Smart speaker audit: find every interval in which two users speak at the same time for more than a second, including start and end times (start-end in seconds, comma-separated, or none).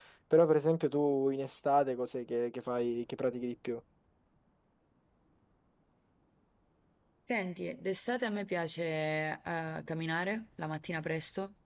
none